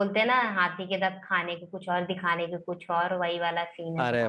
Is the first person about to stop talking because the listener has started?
Yes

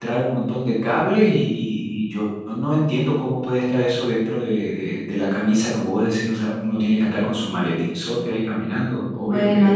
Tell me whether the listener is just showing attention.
No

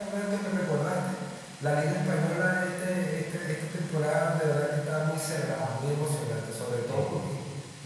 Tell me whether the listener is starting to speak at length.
No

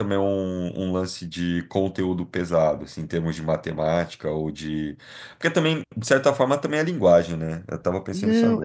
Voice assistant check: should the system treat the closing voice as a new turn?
Yes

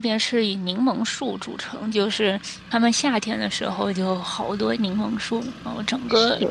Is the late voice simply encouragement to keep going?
Yes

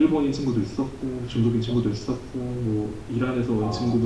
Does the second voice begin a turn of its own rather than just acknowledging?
No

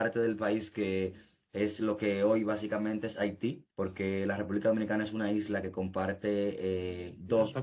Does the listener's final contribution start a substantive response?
Yes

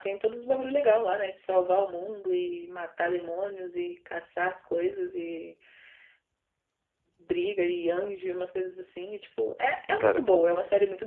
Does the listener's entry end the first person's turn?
No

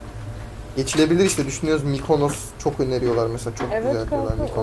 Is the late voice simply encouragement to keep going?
No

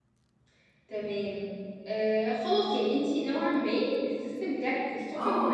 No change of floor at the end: No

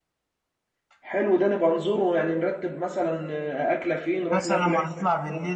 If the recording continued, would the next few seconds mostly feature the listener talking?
Yes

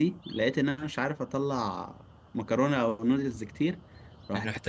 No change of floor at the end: Yes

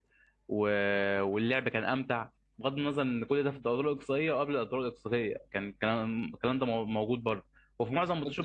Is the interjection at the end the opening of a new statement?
No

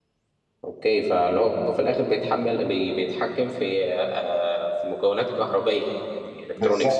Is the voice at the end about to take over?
Yes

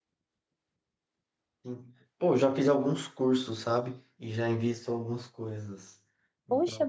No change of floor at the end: No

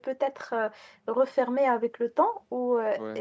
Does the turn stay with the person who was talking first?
Yes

